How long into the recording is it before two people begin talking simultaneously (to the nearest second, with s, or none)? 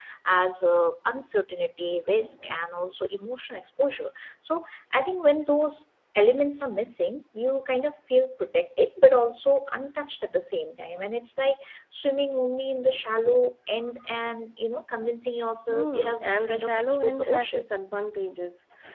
16 s